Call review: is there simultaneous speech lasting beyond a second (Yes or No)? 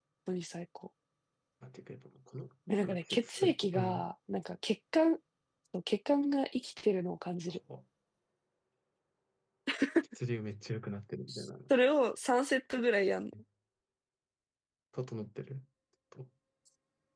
Yes